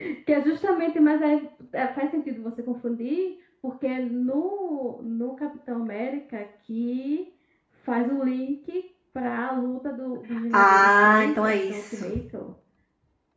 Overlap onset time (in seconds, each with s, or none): 10.5 s